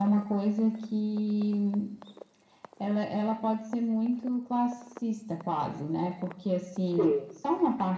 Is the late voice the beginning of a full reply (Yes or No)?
No